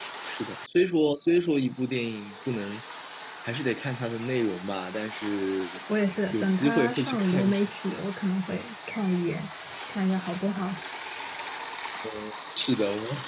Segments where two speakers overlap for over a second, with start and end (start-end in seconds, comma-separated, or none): 6.3-7.6